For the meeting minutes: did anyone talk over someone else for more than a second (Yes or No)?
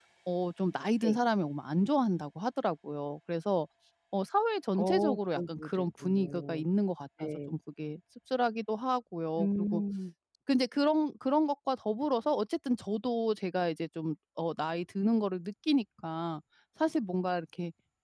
Yes